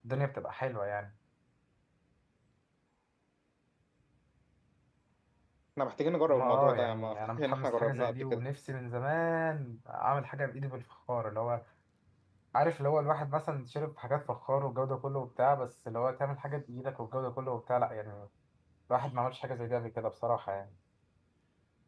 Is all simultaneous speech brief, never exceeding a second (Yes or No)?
No